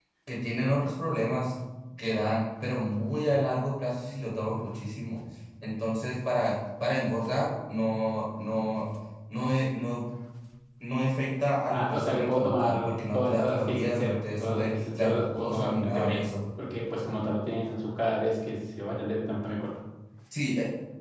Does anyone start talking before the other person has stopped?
Yes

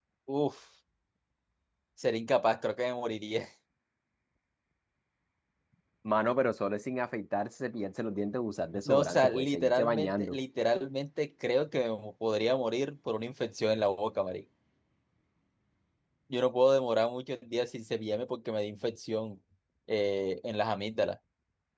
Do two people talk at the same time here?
Yes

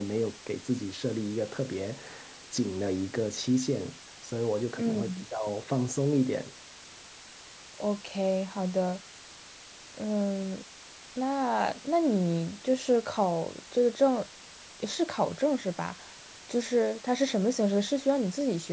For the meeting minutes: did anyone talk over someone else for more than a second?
No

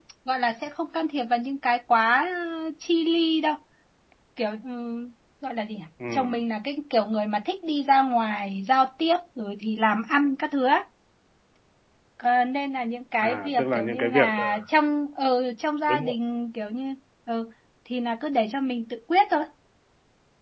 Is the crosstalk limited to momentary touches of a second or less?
No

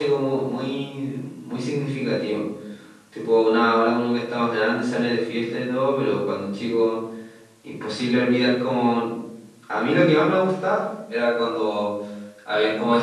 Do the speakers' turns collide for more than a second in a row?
No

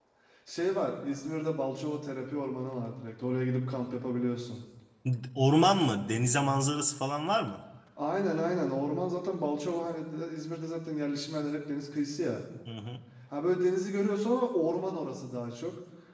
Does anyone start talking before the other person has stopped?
No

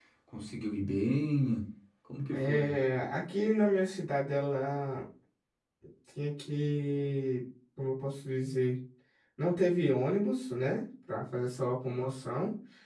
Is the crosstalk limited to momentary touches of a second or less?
Yes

